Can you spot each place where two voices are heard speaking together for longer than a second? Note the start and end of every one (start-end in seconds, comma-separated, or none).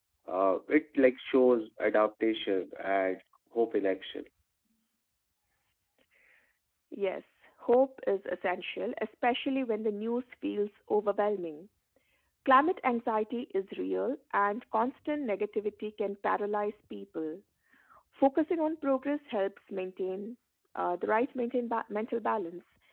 none